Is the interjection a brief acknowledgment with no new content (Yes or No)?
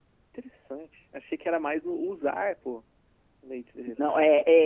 No